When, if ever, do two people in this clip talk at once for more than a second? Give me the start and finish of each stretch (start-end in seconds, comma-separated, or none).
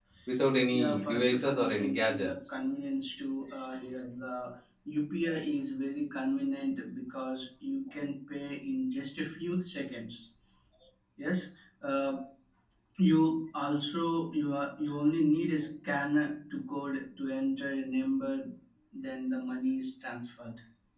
0.7-2.3